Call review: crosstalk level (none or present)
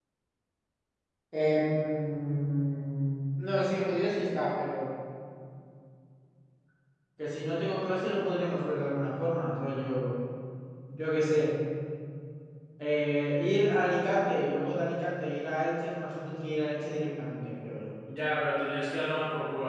none